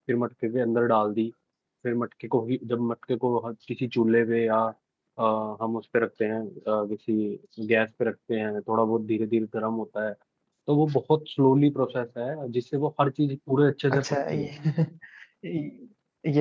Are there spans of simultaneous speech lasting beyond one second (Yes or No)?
No